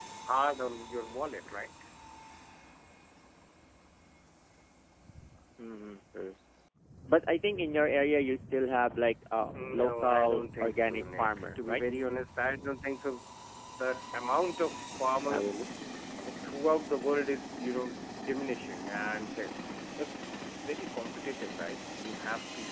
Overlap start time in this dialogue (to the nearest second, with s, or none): 10 s